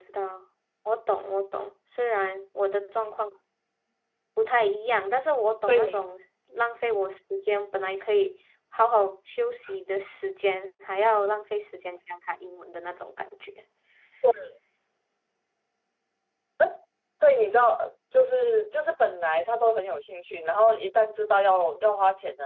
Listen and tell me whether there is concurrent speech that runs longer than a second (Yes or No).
No